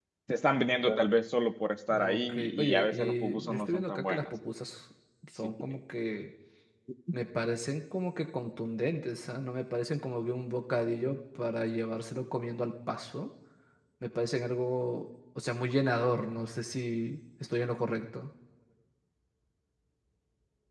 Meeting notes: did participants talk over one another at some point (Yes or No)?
Yes